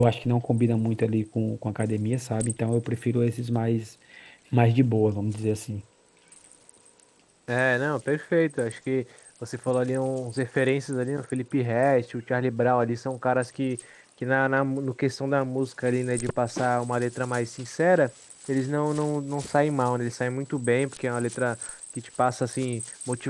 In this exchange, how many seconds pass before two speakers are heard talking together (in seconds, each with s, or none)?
none